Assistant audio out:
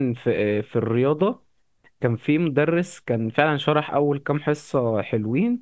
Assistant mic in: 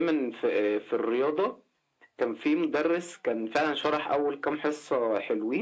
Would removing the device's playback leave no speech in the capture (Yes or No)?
Yes